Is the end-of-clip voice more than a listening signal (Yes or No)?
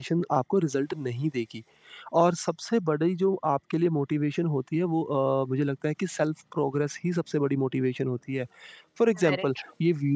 No